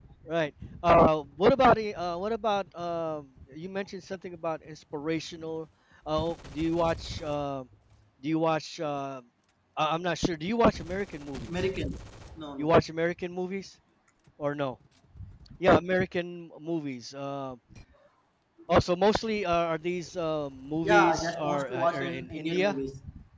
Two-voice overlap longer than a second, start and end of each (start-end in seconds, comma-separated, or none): 20.8-22.8